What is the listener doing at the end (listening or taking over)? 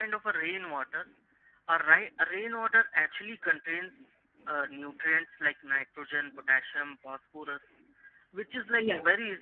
listening